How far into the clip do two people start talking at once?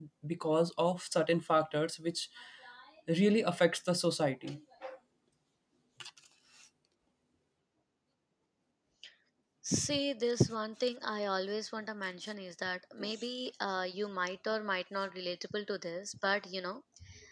none

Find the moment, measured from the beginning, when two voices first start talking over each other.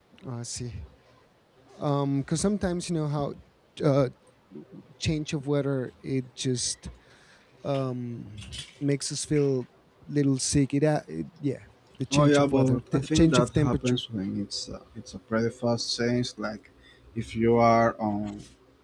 12.1 s

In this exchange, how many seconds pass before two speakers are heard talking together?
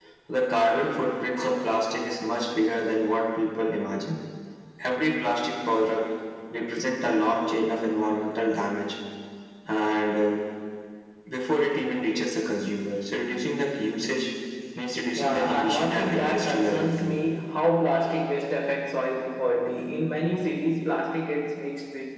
15.2 s

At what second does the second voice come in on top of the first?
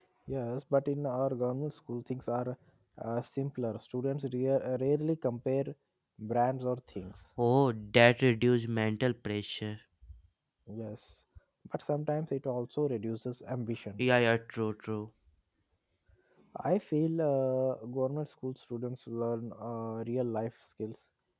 none

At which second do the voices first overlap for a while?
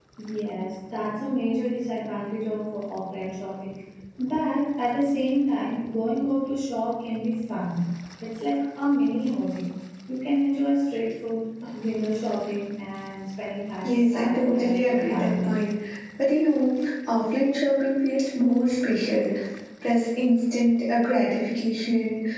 13.8 s

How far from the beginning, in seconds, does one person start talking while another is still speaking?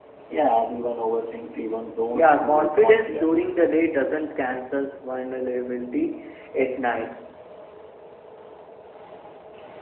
2.1 s

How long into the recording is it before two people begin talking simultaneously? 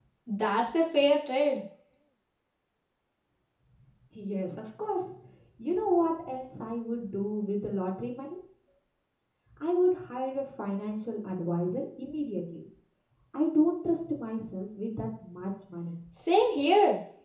none

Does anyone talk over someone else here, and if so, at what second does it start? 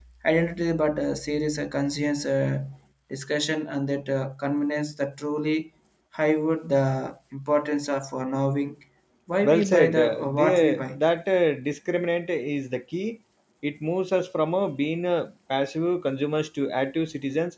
9.5 s

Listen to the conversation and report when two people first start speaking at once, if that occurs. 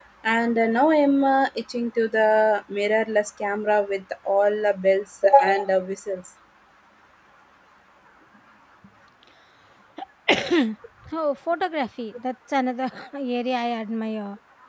none

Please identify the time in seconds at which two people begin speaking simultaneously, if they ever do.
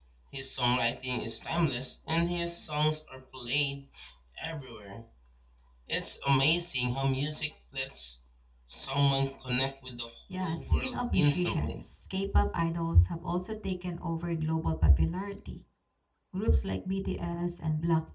10.3 s

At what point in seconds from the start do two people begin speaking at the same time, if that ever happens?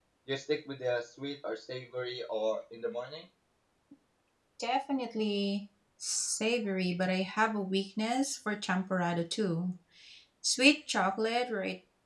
none

